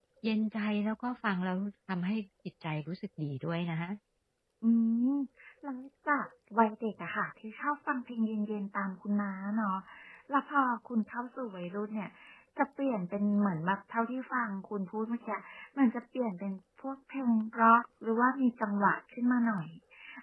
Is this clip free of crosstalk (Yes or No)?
Yes